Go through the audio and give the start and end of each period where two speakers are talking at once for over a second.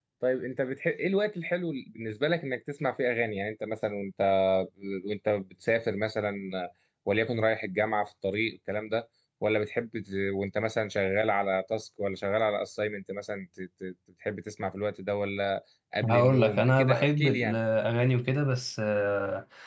16.0-17.6

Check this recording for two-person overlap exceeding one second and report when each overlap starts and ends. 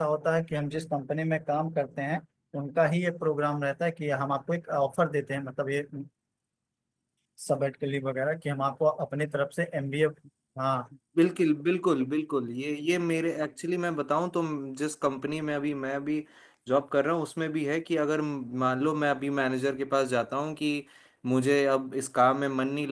none

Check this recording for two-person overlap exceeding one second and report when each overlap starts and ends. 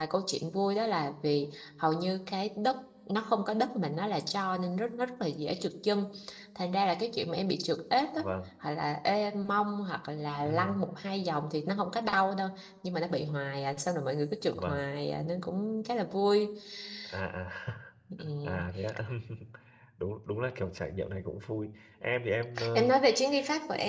none

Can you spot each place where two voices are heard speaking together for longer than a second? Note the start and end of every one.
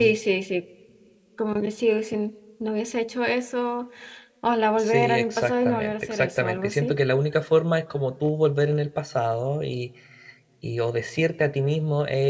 4.8-7.0

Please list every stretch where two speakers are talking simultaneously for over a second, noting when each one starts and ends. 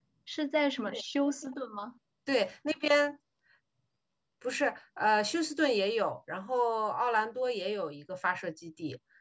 none

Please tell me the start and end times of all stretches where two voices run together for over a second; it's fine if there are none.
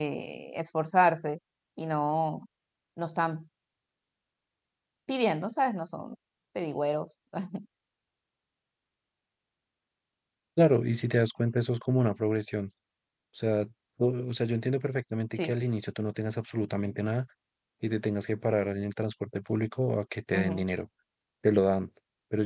none

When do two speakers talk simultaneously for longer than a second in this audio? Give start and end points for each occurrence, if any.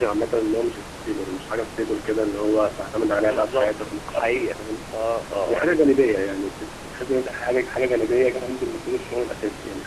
3.2-4.5

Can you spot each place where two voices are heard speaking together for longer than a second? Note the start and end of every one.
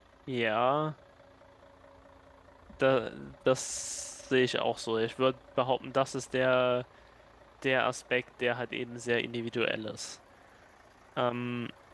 none

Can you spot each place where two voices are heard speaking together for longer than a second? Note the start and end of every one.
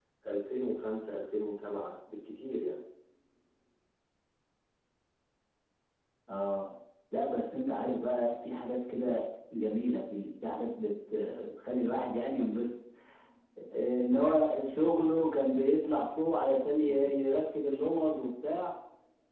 none

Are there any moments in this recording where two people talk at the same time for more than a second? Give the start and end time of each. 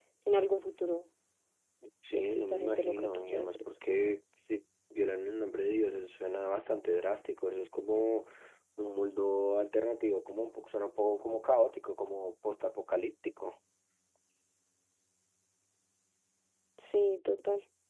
2.1-3.5

